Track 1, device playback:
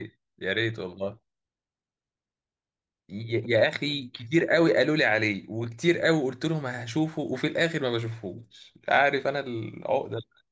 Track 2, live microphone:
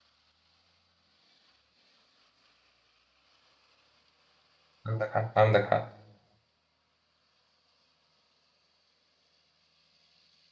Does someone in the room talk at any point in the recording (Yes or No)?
Yes